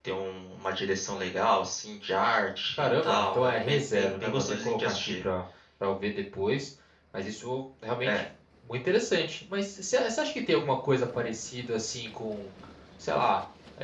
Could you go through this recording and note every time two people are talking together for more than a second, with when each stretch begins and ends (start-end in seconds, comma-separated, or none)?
2.8-5.3